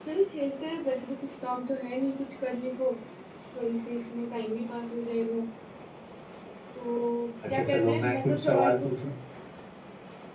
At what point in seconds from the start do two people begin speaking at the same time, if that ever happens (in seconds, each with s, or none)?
7.5 s